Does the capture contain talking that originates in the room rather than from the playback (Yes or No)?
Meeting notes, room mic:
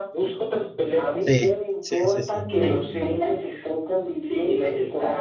Yes